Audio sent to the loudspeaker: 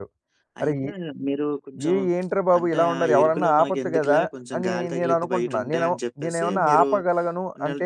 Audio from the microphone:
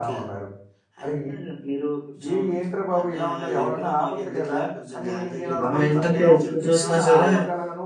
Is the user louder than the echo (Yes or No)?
Yes